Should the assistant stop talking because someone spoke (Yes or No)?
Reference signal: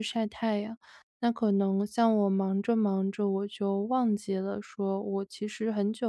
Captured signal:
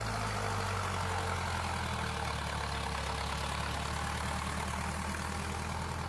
No